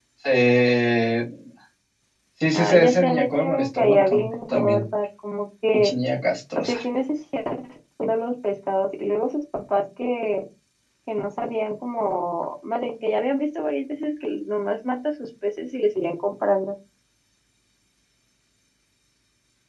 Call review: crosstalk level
present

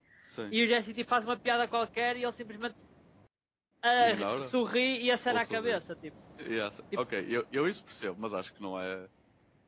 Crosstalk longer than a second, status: none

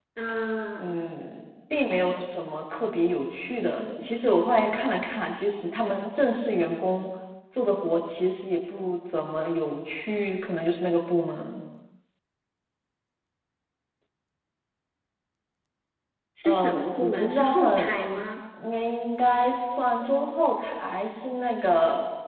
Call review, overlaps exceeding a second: present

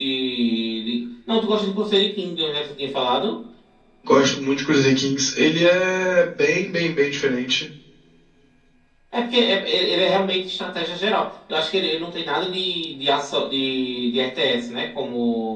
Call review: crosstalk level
none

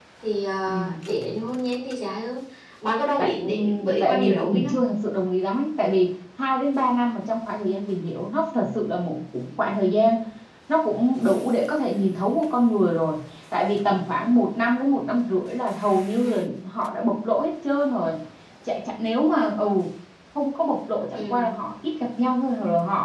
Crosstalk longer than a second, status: present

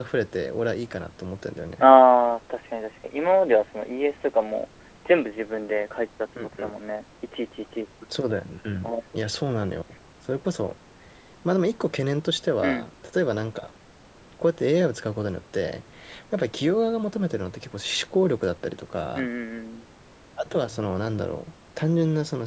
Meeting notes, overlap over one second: none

